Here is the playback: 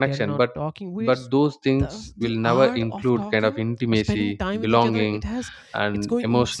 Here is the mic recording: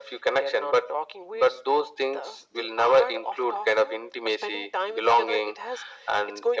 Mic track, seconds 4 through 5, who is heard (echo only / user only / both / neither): echo only